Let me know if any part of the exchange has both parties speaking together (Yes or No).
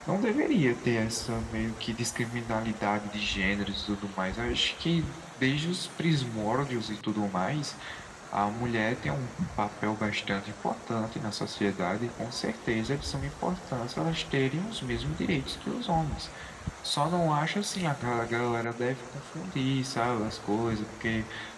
No